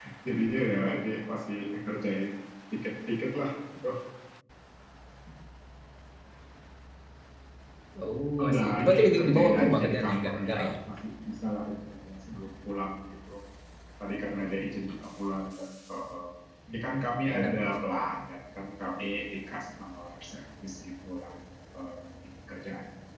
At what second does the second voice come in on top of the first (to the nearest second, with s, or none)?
8 s